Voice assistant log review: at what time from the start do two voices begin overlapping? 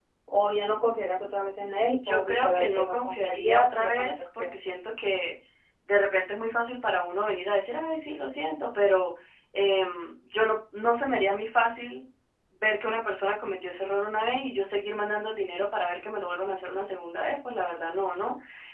2.0 s

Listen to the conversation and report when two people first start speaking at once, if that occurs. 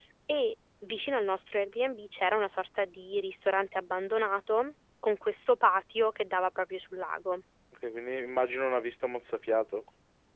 none

